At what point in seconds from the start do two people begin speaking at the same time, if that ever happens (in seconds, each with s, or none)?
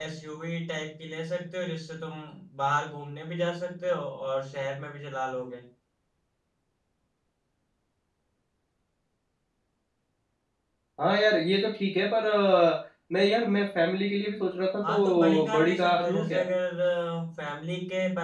14.8 s